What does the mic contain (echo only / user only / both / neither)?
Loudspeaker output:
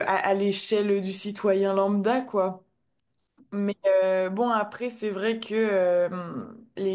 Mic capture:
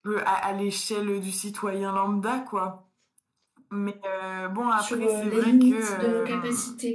both